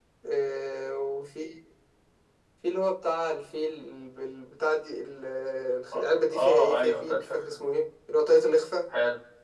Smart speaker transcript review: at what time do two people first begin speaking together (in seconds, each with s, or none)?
5.9 s